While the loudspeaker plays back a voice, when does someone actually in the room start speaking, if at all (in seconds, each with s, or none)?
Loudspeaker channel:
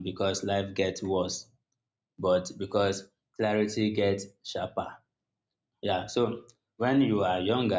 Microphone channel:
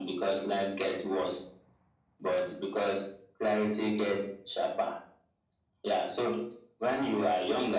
none